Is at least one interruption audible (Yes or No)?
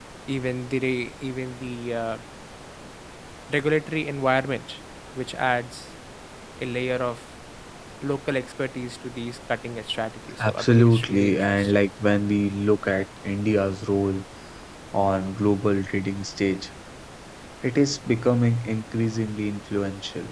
Yes